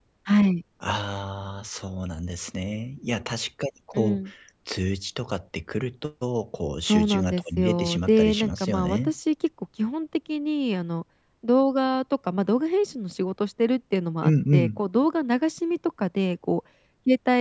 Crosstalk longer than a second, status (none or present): present